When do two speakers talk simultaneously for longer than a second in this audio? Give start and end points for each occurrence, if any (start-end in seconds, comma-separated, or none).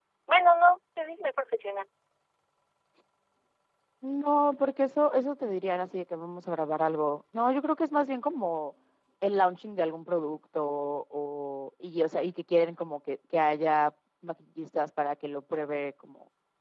none